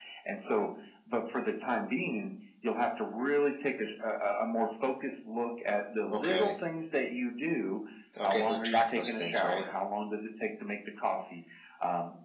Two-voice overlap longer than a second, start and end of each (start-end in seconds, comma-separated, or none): 8.2-9.7